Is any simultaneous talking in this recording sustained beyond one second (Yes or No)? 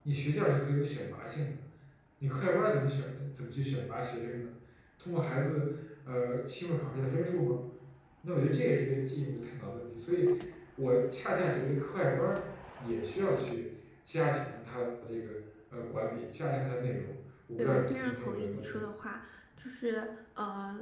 Yes